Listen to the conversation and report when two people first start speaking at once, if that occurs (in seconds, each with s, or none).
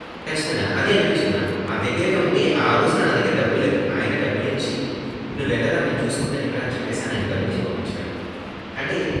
none